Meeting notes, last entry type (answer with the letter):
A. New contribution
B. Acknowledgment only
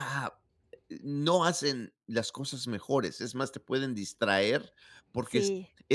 B